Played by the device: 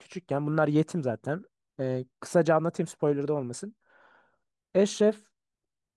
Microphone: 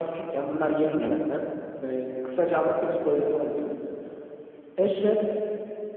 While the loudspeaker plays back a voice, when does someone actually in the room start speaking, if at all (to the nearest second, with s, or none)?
1 s